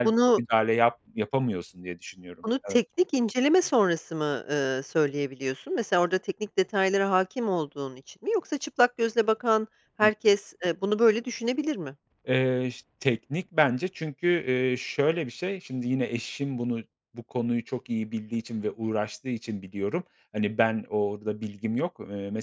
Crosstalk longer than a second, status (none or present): none